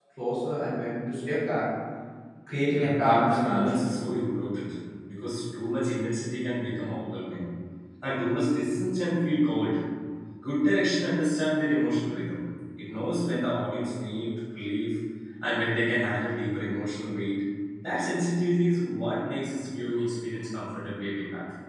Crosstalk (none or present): present